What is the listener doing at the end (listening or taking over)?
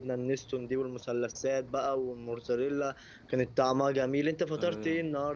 taking over